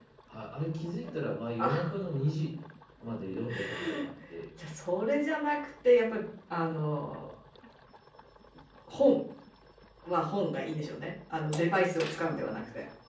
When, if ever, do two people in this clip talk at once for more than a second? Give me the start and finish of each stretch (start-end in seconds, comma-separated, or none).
none